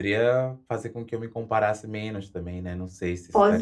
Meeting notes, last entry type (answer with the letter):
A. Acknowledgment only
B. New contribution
B